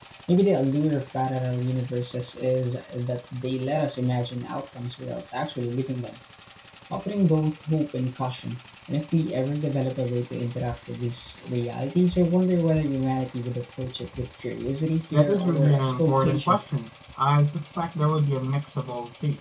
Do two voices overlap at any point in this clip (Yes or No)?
Yes